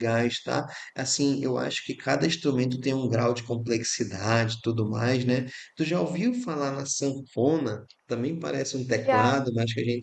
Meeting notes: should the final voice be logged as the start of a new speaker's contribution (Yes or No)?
No